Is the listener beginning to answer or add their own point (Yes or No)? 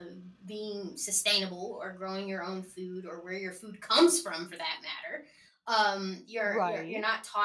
No